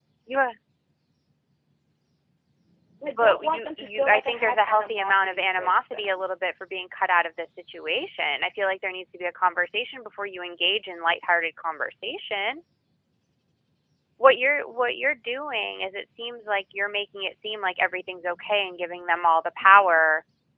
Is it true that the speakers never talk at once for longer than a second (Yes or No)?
No